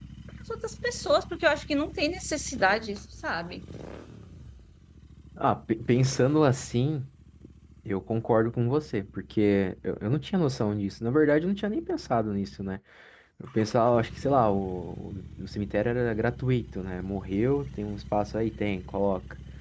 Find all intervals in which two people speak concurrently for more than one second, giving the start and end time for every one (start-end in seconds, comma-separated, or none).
none